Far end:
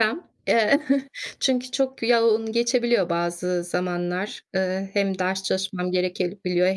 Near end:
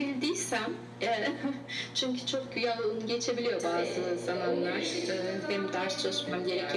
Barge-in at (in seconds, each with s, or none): 3.5 s